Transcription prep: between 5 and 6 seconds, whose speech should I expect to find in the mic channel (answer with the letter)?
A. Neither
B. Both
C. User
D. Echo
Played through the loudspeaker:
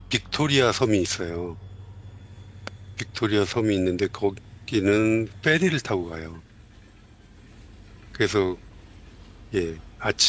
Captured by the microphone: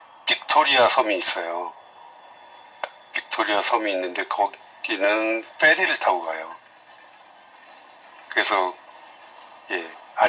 D